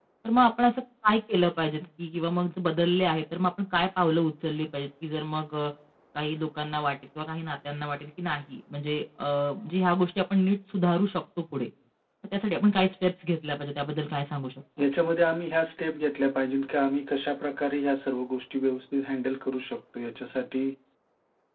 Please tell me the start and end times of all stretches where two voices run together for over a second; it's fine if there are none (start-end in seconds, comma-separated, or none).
none